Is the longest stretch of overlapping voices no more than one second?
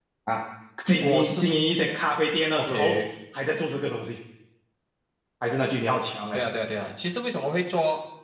Yes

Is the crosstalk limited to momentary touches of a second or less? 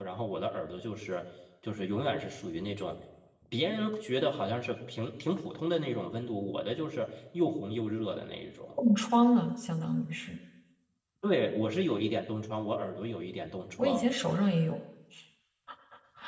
Yes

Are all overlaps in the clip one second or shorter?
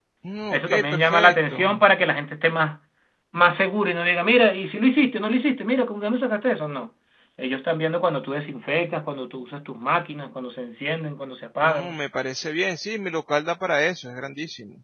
No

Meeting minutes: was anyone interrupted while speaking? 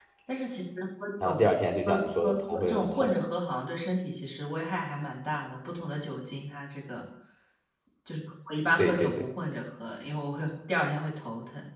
Yes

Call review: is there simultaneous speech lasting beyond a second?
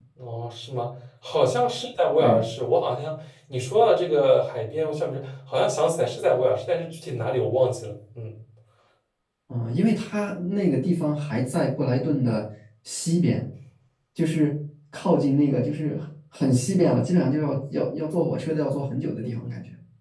No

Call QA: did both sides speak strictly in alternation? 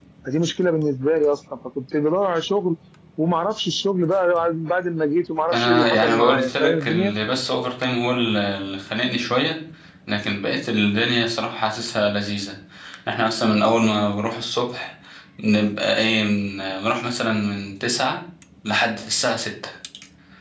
No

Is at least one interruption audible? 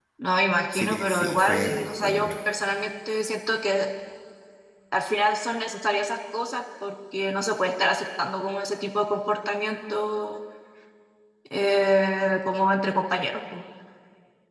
Yes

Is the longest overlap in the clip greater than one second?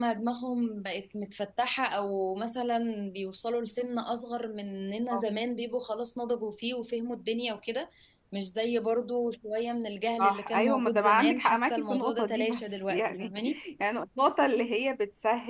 Yes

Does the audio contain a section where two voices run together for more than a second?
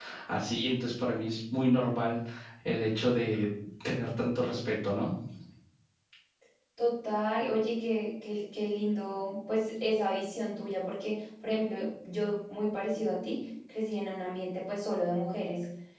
No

